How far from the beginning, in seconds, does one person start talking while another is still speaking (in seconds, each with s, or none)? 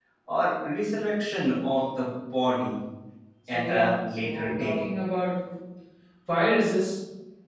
3.5 s